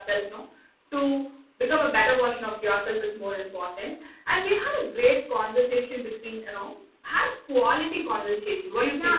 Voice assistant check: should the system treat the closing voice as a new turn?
Yes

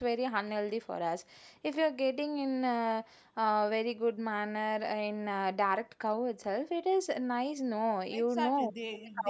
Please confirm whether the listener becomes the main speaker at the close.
Yes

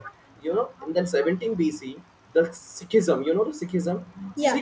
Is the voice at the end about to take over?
No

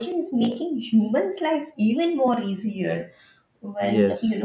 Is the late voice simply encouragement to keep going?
Yes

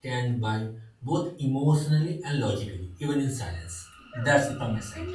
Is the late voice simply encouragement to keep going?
No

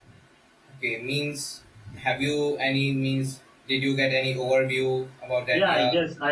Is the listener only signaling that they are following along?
No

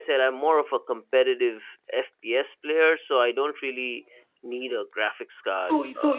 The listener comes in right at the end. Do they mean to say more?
Yes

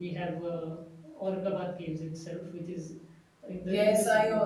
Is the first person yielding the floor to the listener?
Yes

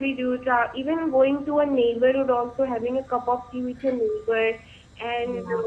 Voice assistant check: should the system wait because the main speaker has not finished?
Yes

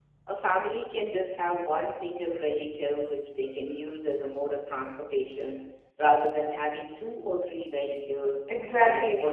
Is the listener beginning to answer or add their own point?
No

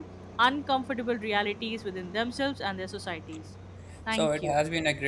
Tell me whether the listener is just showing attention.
No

